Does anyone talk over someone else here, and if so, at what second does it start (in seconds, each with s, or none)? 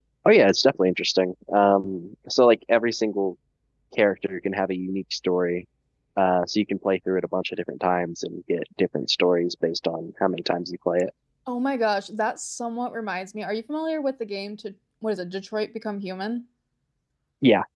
none